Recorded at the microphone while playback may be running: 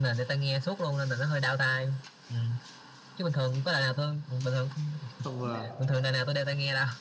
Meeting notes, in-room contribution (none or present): present